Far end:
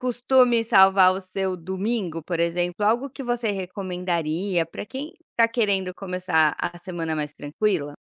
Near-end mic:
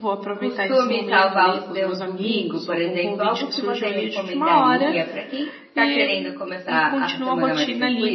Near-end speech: present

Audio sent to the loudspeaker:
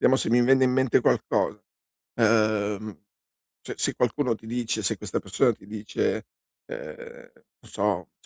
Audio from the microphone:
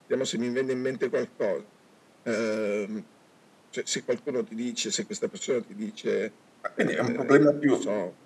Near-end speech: present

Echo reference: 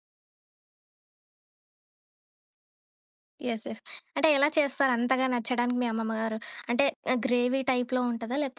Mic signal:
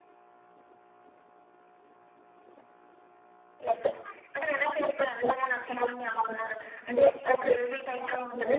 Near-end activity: none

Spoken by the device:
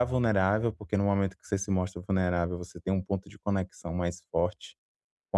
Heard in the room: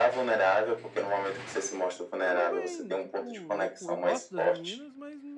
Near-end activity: present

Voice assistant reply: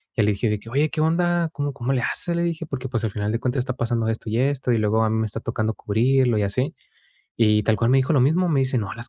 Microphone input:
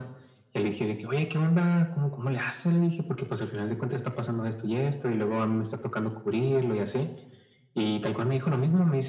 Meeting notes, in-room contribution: none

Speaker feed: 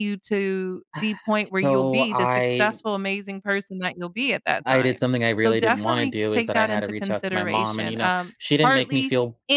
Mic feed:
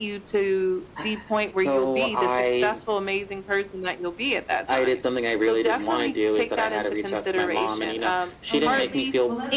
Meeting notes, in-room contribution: present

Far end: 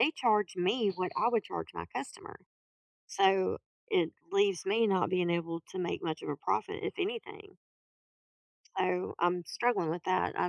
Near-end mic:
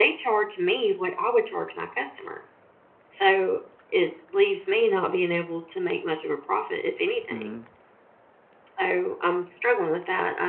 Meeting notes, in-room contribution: present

